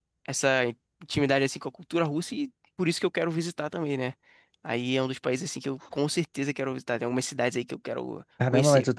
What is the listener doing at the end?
taking over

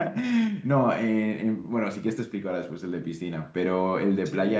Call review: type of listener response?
listening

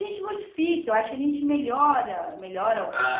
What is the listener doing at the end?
taking over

